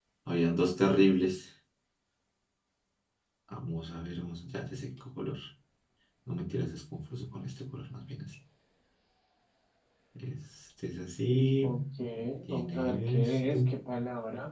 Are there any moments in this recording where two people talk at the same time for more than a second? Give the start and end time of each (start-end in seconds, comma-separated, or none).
12.5-13.7